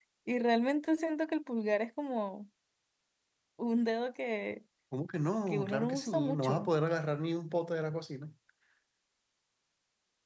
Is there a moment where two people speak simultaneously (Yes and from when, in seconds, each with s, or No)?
Yes, from 5.5 s